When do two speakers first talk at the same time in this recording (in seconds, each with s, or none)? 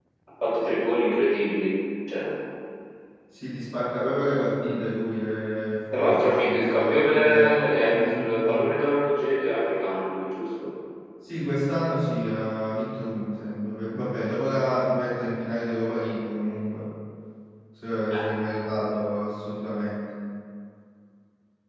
5.9 s